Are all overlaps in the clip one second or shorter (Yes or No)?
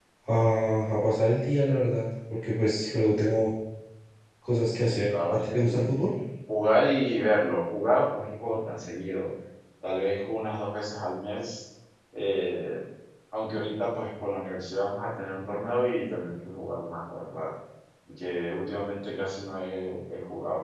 No